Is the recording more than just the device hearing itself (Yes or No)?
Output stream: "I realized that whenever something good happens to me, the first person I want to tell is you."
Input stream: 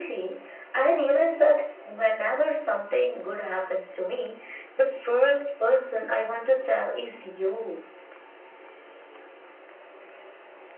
No